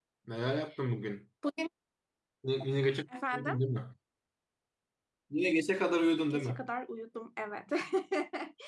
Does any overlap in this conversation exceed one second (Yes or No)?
No